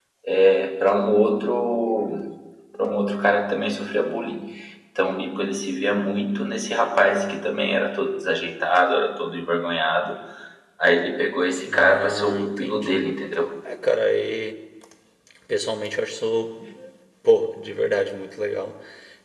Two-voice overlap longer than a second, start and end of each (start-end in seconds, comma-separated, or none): 11.7-13.1